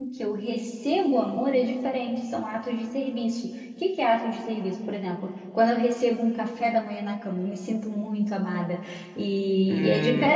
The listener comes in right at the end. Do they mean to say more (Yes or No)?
Yes